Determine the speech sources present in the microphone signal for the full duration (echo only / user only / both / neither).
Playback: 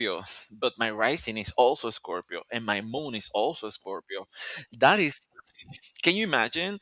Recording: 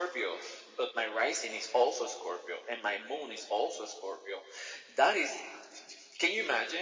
echo only